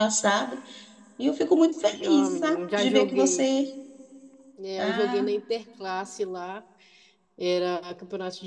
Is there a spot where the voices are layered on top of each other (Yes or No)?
Yes